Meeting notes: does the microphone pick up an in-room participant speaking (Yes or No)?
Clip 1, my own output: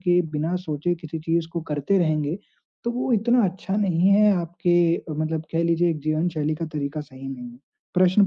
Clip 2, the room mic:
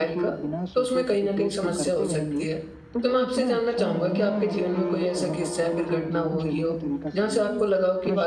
Yes